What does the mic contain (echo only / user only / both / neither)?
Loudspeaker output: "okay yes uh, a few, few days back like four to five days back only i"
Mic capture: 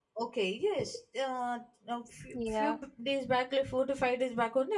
both